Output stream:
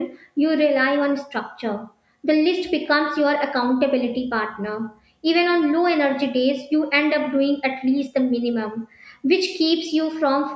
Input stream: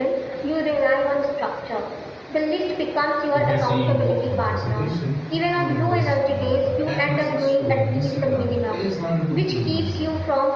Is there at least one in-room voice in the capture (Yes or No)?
Yes